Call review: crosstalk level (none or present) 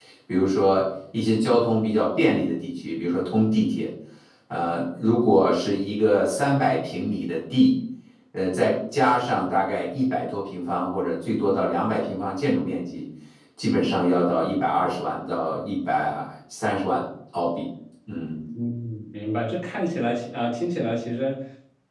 none